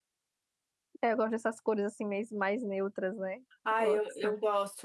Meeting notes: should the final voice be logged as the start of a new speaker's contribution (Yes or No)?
Yes